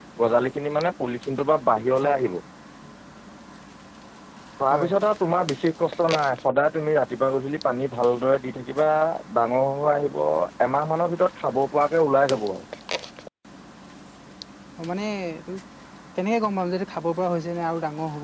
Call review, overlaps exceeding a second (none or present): none